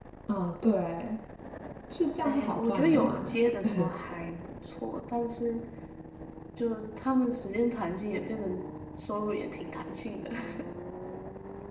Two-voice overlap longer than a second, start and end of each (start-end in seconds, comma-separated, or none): 2.2-3.9